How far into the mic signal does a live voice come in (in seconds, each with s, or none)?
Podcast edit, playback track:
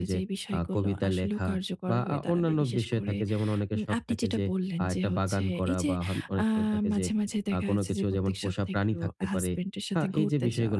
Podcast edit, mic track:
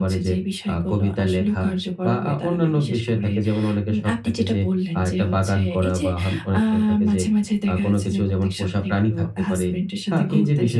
none